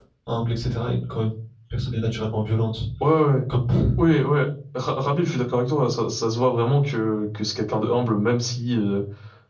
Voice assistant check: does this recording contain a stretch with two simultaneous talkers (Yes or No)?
No